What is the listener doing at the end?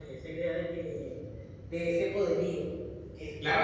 taking over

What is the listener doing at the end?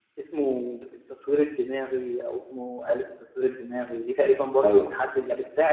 listening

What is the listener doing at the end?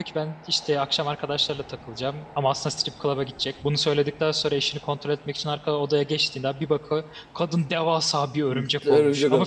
taking over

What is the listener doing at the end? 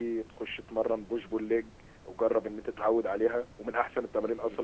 taking over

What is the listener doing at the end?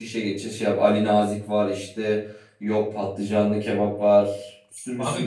taking over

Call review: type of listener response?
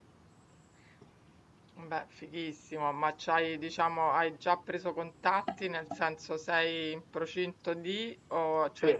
listening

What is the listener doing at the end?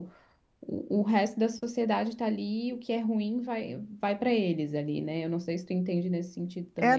taking over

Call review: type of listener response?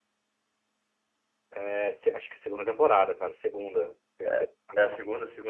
taking over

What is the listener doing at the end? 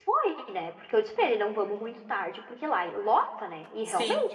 listening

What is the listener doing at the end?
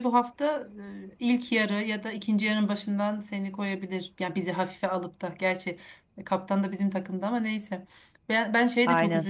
listening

